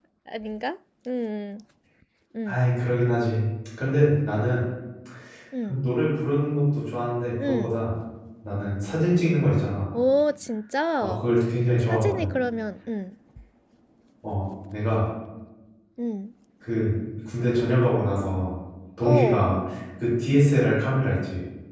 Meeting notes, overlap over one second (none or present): none